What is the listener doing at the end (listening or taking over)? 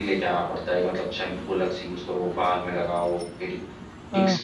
listening